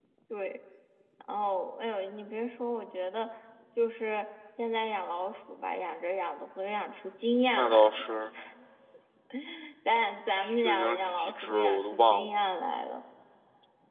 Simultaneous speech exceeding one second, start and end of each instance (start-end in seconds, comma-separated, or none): 10.6-12.3